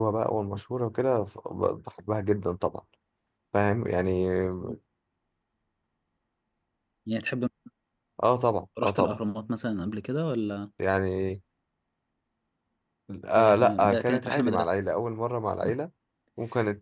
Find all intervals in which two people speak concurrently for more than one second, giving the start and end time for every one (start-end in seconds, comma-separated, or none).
13.4-14.7